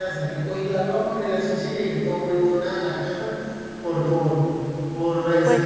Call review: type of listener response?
taking over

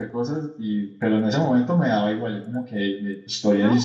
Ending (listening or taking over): taking over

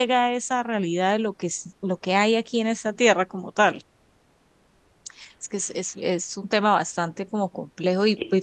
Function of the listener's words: listening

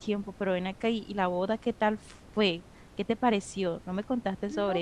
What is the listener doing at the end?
taking over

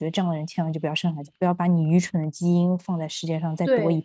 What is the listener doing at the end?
taking over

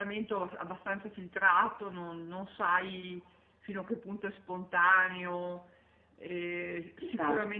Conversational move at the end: listening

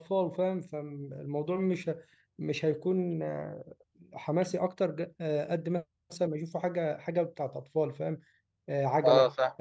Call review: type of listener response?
listening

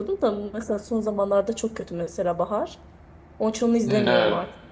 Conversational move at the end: taking over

